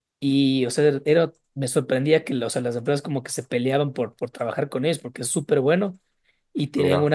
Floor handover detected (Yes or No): No